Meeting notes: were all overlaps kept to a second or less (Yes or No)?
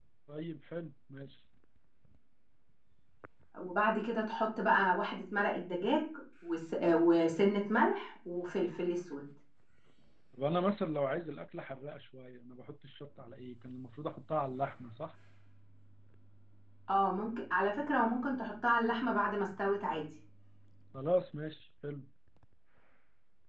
Yes